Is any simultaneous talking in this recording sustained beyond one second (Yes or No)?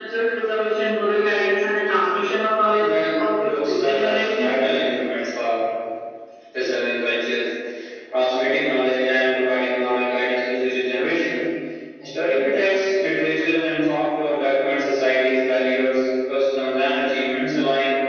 Yes